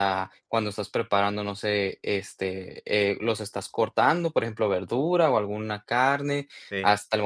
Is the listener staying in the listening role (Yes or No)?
Yes